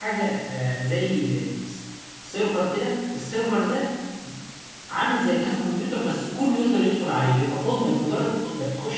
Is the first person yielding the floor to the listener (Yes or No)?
No